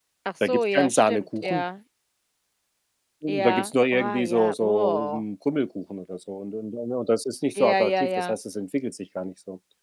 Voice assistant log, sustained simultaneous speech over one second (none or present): present